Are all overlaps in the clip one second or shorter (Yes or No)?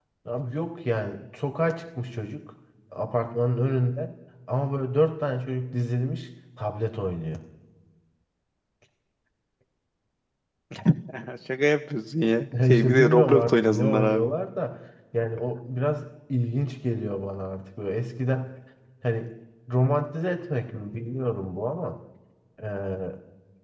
No